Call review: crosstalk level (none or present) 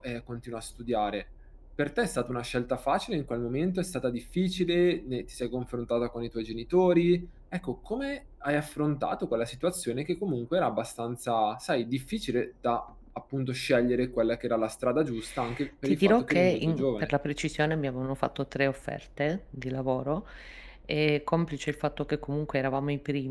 present